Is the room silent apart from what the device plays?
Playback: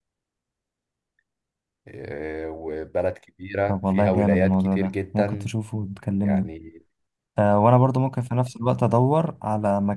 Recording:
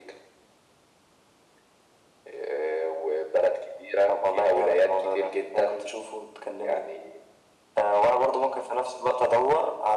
Yes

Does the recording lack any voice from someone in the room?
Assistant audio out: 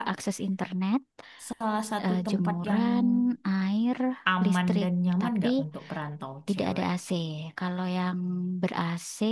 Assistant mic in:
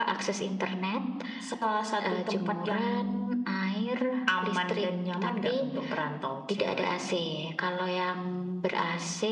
Yes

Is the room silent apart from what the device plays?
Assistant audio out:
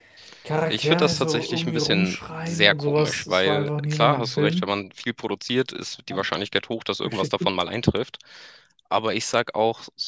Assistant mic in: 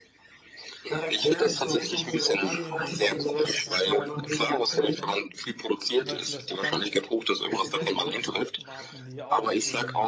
No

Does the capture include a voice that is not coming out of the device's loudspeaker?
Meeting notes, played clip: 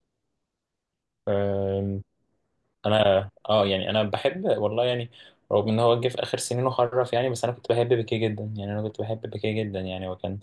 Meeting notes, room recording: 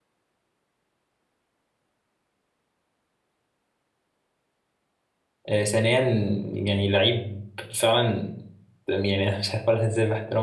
Yes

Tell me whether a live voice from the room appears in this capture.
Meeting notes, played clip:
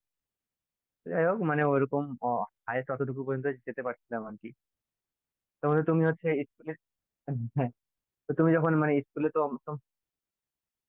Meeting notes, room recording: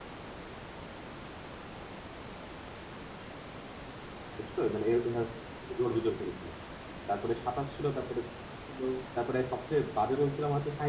Yes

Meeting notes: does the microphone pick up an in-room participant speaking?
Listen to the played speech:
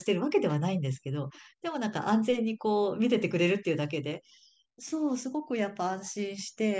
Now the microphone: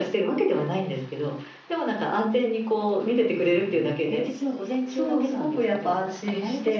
Yes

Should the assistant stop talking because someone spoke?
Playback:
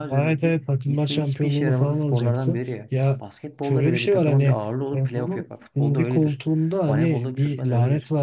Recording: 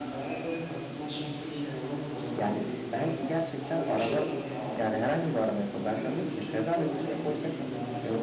Yes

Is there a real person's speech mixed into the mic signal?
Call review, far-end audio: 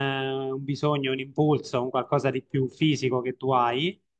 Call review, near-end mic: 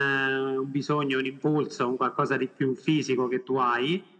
No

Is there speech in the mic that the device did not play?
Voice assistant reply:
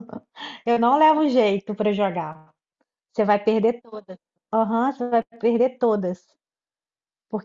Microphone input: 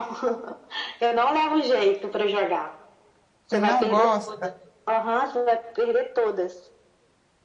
Yes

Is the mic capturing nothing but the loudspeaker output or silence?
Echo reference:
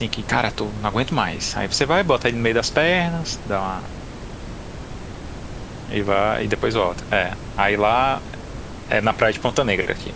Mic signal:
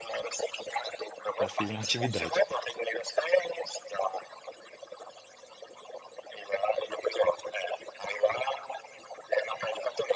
No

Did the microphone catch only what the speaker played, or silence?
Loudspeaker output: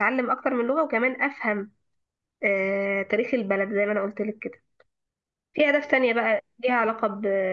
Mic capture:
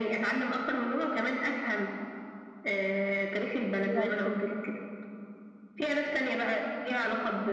No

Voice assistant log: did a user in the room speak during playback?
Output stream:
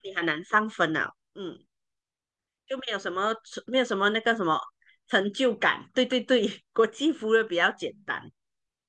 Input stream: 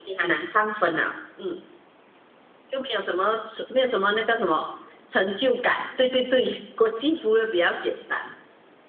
No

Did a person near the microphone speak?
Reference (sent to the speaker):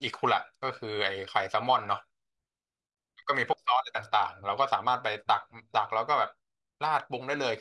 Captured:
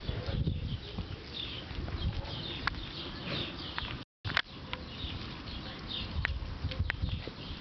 No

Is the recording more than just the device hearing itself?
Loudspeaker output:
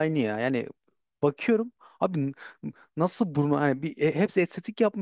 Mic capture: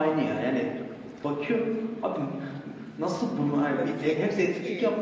Yes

